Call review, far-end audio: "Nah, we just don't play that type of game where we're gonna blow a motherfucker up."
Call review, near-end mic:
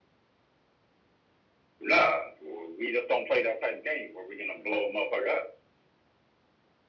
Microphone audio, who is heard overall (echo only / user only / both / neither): echo only